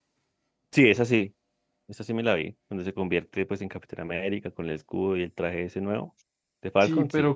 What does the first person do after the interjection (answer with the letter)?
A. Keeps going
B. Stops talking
B